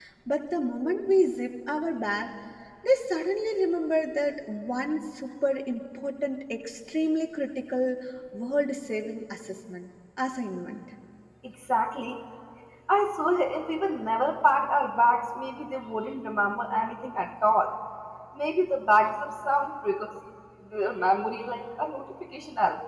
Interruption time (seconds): none

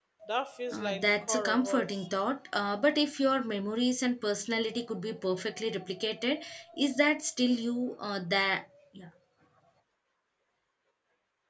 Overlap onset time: 0.7 s

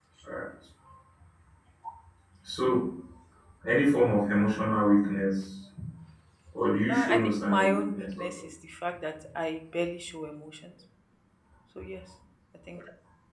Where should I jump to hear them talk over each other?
6.9 s

